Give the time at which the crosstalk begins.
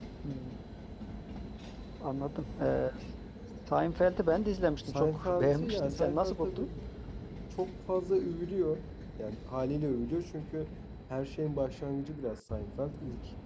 4.8 s

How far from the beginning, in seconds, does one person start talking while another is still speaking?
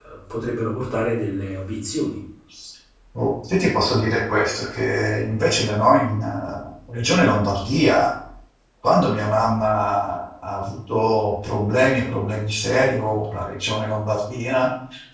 none

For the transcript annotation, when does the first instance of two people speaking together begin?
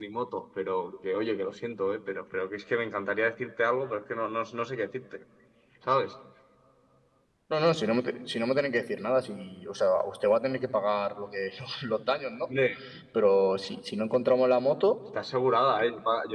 none

